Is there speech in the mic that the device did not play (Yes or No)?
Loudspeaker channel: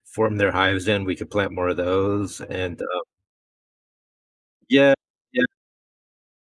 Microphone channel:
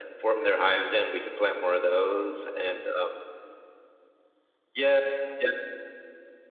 No